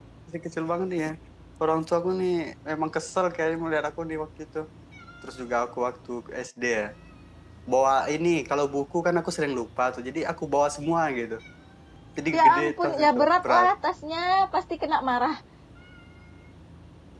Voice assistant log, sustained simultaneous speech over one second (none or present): present